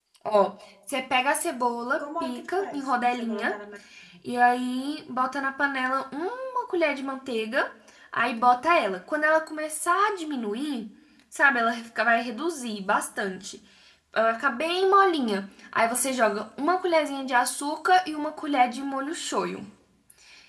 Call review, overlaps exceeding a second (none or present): present